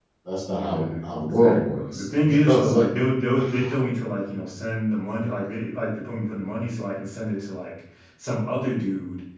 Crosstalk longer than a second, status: present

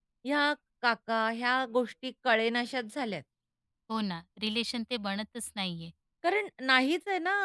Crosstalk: none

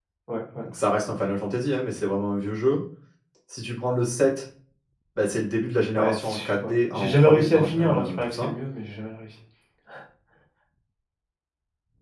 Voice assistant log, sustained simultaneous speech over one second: present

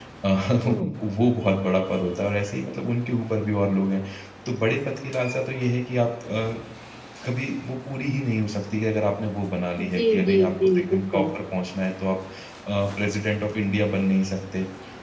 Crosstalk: present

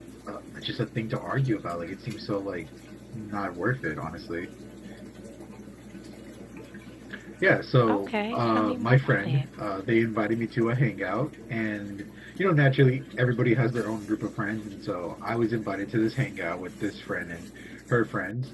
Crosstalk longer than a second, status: present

